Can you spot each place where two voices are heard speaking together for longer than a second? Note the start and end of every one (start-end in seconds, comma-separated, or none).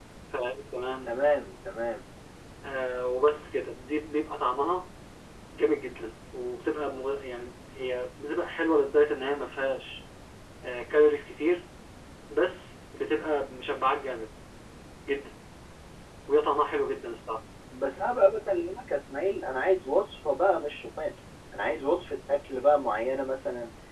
none